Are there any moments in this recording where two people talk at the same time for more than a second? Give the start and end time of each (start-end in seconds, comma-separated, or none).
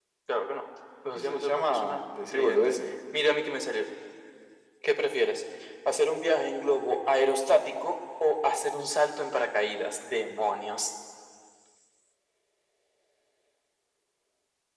1.2-2.8